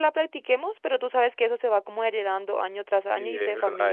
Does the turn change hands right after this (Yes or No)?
Yes